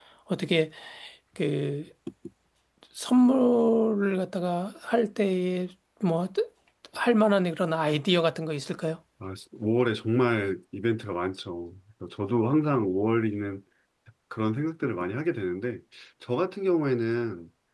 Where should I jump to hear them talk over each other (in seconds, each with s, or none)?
none